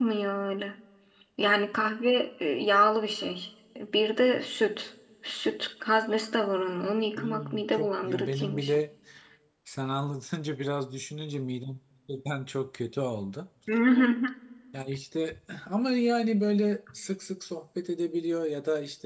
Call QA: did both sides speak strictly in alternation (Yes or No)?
No